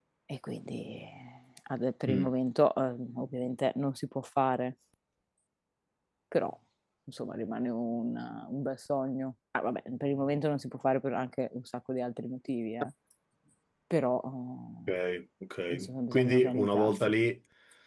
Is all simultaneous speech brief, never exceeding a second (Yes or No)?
No